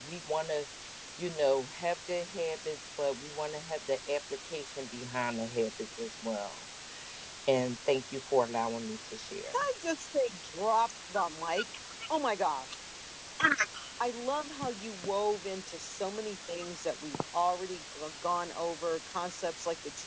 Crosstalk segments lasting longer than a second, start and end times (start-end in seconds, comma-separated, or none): none